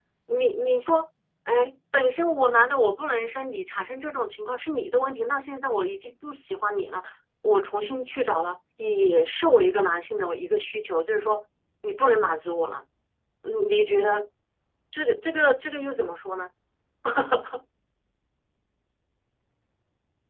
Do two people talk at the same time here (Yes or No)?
No